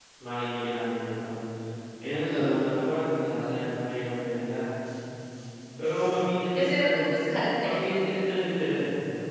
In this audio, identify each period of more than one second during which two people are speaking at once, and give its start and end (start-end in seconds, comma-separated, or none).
none